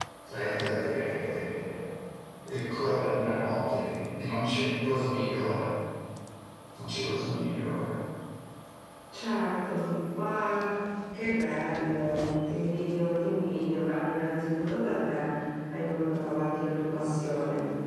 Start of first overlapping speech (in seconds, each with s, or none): none